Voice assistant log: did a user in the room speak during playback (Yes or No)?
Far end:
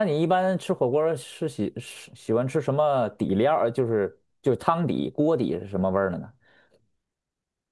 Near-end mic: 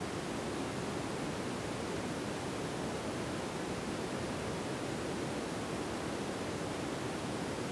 No